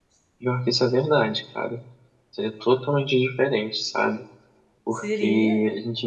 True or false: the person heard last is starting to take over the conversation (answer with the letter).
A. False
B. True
A